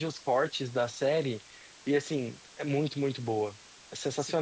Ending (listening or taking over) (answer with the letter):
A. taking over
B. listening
A